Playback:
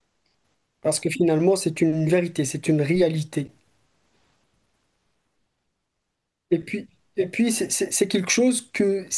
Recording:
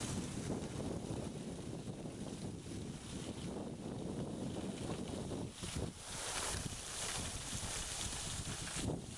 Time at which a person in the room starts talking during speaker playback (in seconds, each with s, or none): none